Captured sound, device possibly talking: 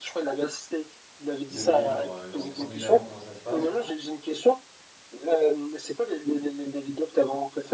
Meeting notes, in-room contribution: present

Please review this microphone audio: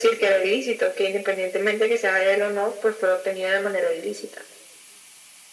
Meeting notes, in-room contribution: none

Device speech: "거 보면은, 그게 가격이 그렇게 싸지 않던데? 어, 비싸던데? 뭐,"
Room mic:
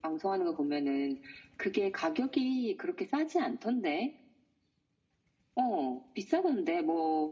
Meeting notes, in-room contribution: none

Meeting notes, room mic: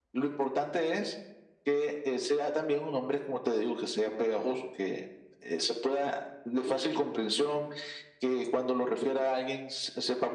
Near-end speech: none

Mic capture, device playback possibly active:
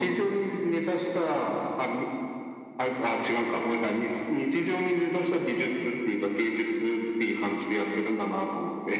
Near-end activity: none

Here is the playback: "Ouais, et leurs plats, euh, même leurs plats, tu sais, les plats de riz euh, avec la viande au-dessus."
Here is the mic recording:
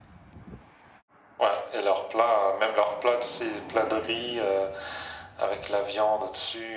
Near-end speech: none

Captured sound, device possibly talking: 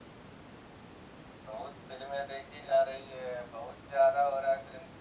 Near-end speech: none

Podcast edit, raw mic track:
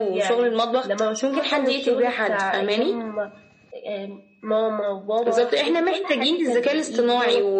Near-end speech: none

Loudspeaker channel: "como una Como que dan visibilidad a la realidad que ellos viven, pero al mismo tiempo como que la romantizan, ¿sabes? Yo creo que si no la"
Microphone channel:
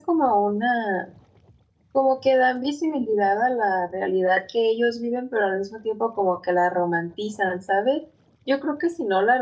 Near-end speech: none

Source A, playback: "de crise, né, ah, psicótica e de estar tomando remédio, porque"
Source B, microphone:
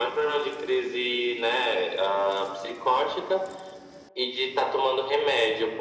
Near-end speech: none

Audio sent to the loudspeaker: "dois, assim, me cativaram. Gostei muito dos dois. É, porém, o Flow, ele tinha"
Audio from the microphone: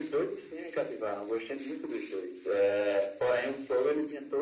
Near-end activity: none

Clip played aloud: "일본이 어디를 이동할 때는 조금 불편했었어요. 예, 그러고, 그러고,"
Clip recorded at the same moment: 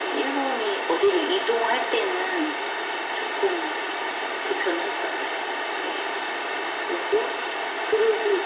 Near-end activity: none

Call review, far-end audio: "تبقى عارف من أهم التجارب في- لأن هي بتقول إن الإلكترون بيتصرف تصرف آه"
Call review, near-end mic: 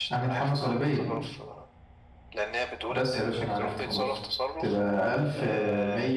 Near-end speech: present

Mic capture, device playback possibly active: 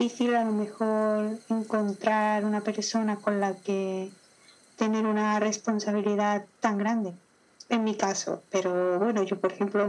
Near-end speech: none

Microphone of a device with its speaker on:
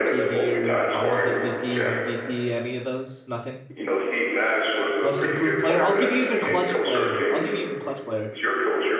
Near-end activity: present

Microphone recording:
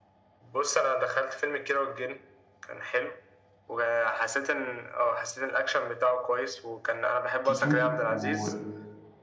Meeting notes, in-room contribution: present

